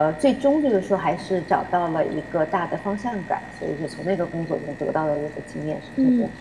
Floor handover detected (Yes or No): Yes